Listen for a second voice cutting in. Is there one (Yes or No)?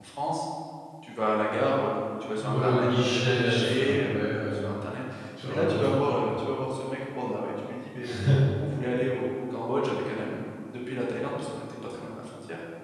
Yes